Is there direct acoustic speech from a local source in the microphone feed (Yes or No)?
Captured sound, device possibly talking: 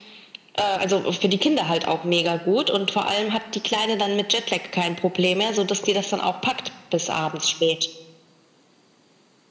No